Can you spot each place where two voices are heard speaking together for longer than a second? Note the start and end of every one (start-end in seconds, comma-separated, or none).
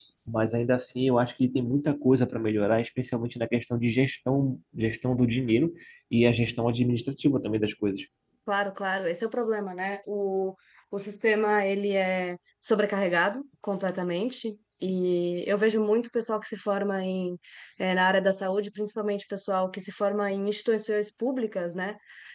none